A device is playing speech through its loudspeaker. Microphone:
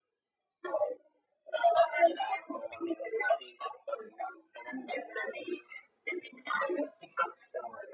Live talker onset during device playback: none

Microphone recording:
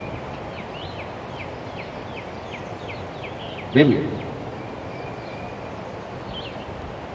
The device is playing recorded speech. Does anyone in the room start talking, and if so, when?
3.7 s

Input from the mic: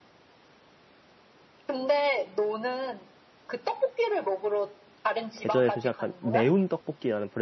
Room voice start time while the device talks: 5.3 s

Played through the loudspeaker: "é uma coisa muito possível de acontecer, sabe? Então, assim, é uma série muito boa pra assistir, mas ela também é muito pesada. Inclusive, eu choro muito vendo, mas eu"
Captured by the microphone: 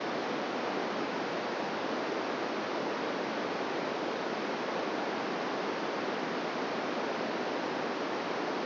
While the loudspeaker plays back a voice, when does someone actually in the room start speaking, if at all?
none

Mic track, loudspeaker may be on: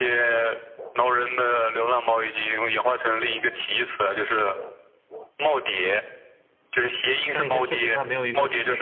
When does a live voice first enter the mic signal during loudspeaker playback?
7.3 s

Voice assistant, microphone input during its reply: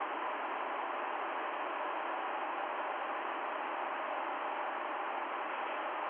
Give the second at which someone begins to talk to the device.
none

